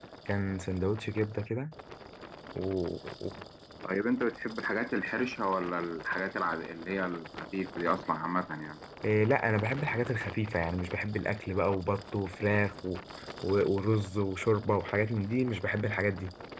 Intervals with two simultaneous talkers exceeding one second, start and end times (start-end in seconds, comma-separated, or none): none